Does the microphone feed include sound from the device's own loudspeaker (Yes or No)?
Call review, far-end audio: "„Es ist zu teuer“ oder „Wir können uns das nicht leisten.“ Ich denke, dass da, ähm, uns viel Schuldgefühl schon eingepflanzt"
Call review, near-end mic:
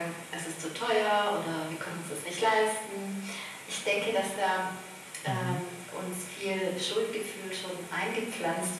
Yes